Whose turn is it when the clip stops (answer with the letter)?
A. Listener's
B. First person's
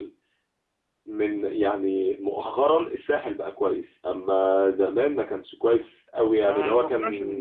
A